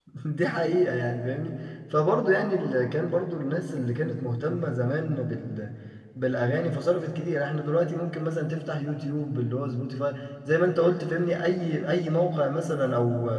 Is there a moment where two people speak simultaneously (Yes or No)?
No